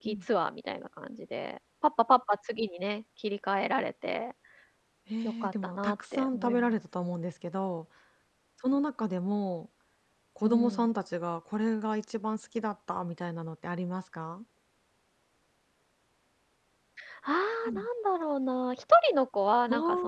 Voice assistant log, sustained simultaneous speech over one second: present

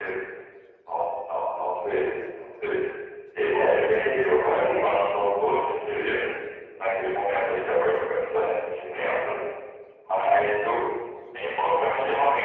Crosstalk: present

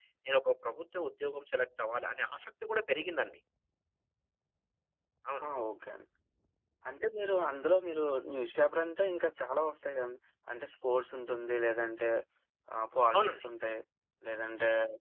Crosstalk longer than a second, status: none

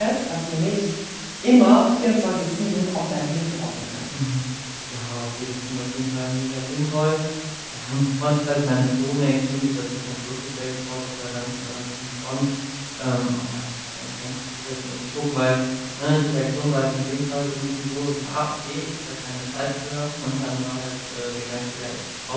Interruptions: none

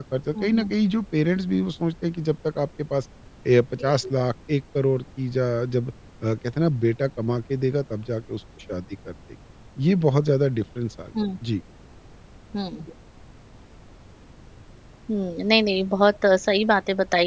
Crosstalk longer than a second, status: none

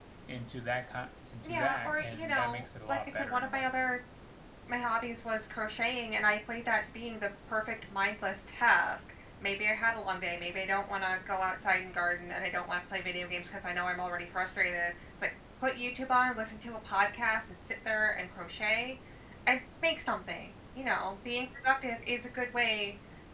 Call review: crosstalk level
present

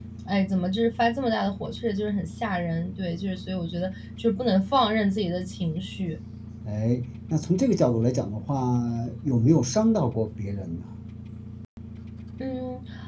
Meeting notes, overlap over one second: none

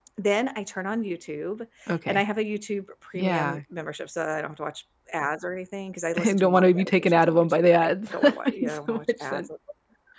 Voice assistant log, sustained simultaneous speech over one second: present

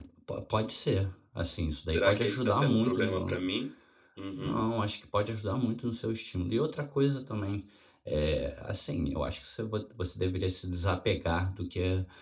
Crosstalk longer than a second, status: present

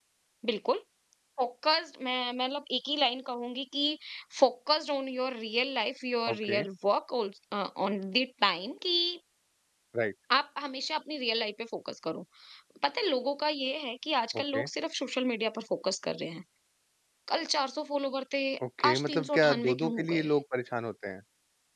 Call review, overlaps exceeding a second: present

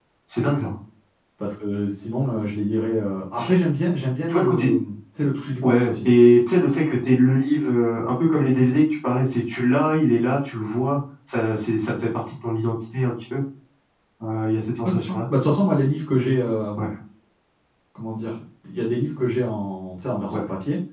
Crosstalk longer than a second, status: none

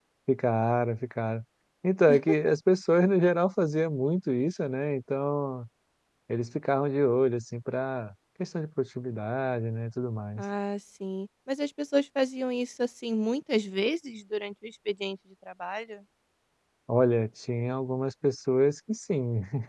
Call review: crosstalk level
none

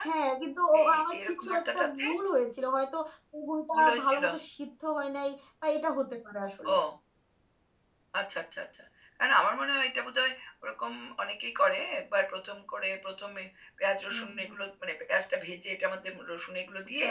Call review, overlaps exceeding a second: present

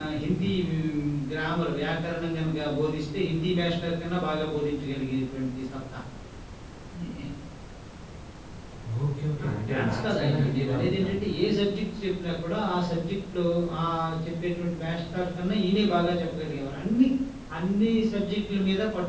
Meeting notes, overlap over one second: present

